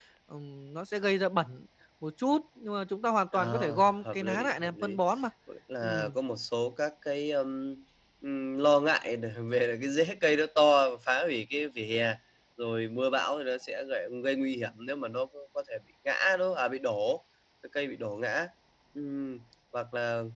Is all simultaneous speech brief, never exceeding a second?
No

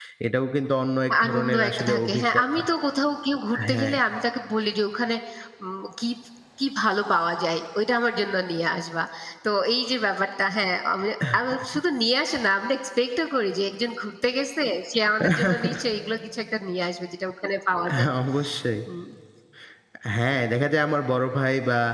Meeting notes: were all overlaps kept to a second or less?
No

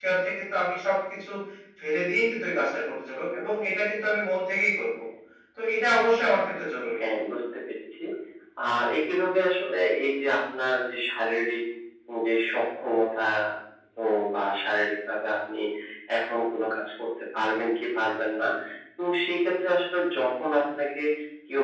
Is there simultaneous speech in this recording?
No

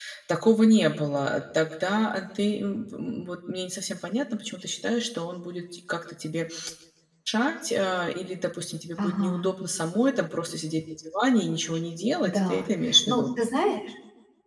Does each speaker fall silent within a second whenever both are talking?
Yes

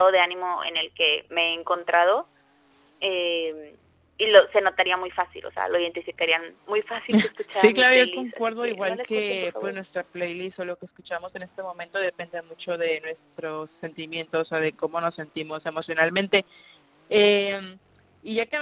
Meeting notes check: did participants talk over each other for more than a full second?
Yes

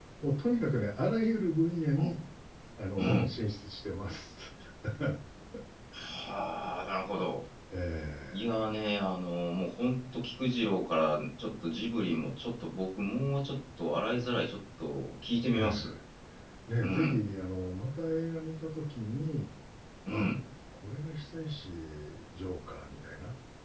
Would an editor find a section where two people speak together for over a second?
No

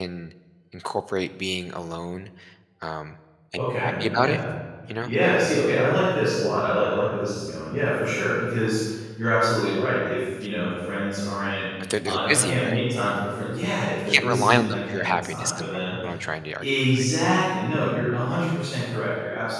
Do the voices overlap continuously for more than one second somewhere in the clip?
Yes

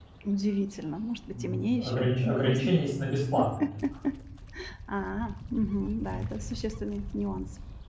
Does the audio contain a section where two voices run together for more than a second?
Yes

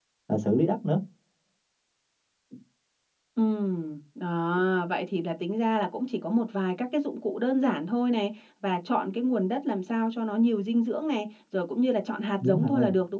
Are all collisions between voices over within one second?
Yes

